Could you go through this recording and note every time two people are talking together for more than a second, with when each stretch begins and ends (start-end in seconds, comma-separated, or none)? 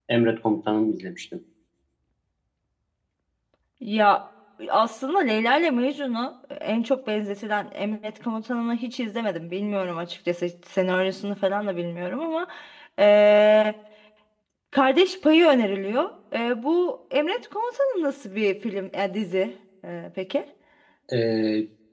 none